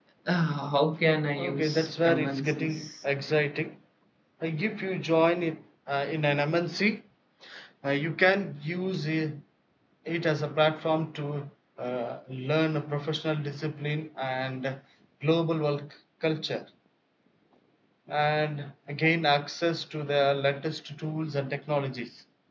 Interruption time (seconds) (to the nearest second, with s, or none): 1 s